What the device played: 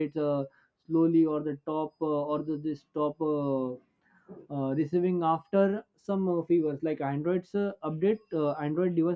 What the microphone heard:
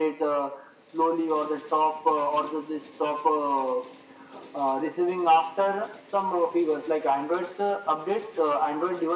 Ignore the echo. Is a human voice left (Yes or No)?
No